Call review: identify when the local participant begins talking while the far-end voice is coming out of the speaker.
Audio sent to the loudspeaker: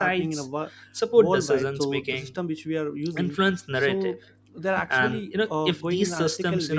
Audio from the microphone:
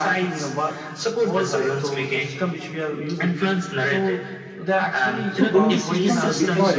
5 s

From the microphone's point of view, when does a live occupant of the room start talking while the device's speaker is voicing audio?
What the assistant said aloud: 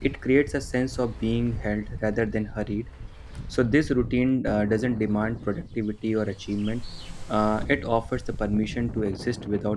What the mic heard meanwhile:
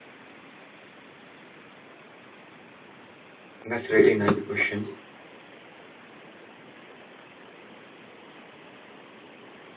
4 s

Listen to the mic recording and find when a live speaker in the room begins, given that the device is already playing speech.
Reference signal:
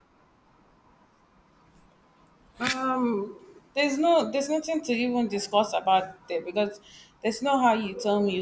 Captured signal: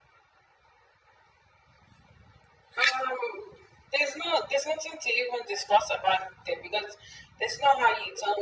none

